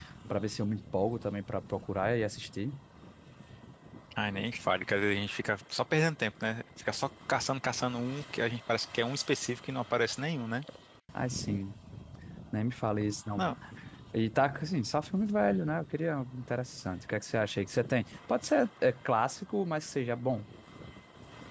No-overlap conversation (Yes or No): Yes